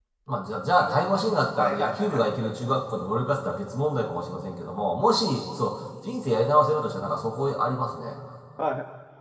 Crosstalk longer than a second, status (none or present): present